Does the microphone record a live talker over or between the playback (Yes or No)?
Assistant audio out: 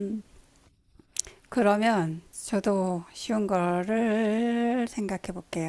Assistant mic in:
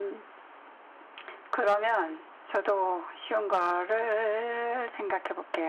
No